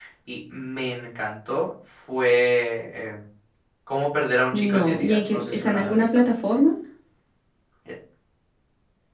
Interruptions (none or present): present